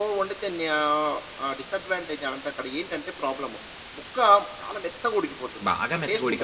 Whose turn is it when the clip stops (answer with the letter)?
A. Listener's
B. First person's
A